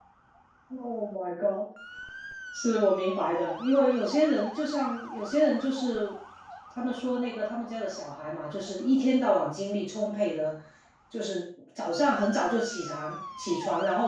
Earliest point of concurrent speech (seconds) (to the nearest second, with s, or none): none